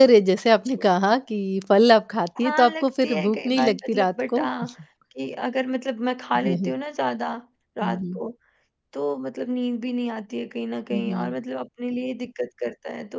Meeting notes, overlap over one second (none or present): present